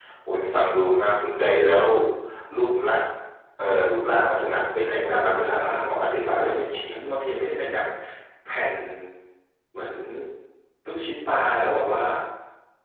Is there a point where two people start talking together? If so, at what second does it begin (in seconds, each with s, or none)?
4.8 s